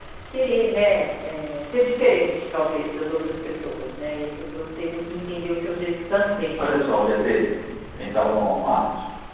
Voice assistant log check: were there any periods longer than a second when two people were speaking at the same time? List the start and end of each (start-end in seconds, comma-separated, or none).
none